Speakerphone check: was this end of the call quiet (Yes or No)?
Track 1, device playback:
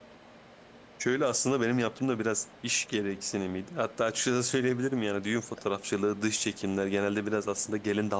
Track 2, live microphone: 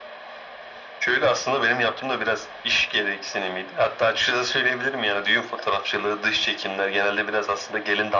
Yes